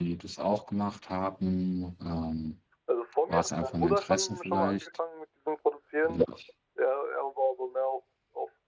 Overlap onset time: 3.3 s

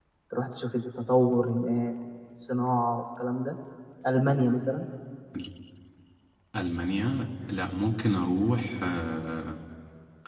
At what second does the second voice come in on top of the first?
none

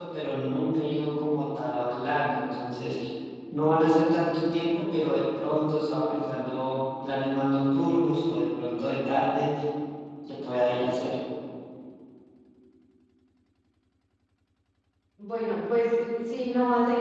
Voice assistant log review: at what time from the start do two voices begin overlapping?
none

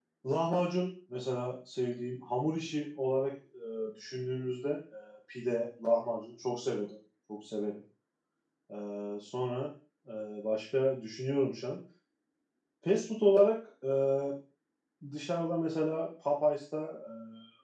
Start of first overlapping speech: none

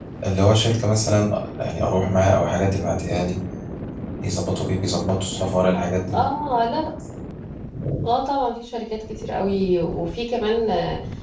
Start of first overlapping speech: none

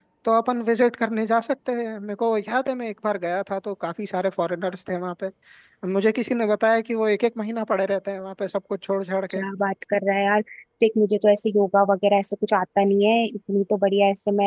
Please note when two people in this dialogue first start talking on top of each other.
none

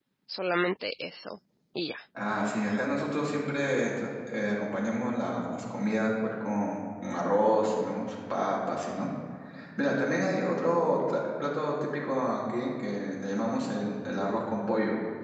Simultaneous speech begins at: none

